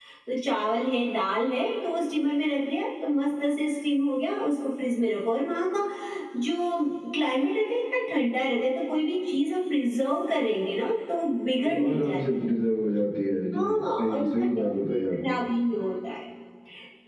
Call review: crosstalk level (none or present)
present